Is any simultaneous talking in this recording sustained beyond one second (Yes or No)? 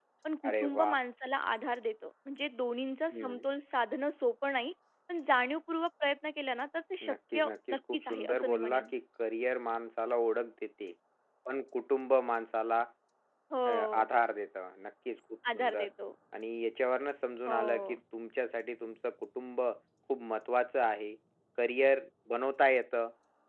Yes